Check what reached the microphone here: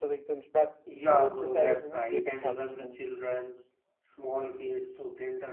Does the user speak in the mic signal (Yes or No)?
Yes